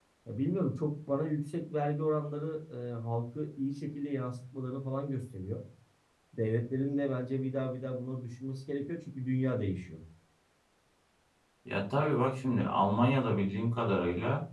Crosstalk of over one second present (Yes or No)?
No